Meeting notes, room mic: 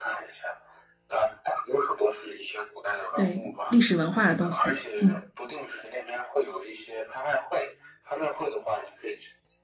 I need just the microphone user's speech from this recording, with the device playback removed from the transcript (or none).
对，历史文化的东西，嗯